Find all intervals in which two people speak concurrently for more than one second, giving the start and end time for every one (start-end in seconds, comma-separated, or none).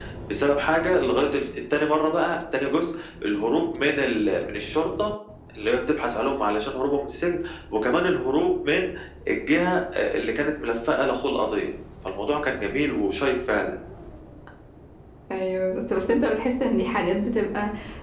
none